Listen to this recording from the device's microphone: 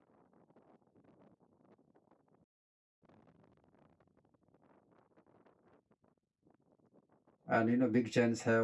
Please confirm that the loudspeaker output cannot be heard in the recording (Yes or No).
Yes